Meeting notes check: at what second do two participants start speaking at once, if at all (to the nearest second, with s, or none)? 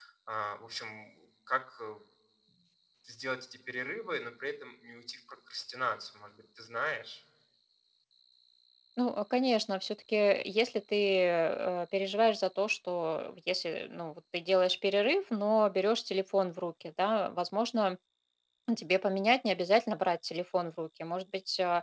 none